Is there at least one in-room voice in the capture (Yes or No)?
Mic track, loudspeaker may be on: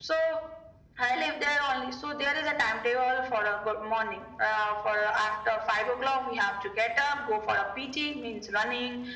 No